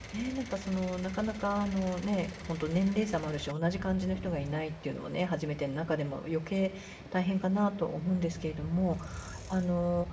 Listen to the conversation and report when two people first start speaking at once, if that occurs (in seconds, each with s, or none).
none